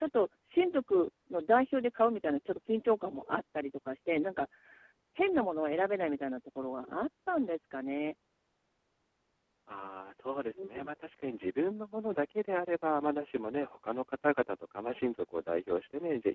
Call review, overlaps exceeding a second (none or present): none